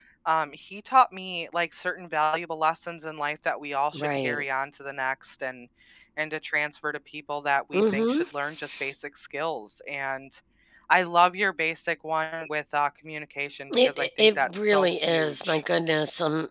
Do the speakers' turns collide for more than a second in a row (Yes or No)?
Yes